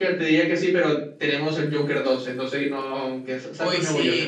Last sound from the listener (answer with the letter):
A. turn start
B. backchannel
A